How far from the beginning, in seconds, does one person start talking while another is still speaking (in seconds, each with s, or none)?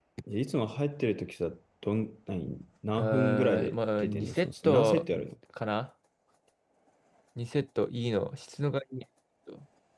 3.0 s